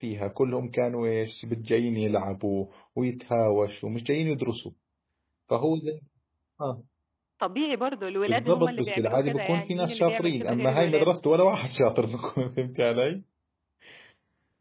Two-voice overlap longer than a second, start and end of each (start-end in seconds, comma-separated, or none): 8.3-11.1